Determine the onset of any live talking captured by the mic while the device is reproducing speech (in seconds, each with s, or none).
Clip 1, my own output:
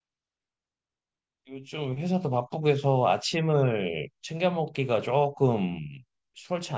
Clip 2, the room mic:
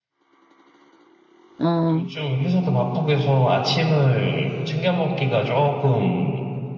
1.6 s